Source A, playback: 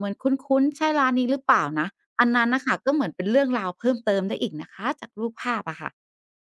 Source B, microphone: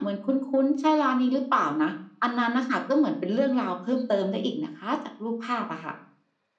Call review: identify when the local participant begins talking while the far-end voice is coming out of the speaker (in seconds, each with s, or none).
none